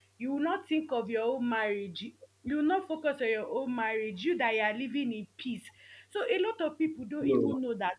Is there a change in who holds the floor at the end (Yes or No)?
No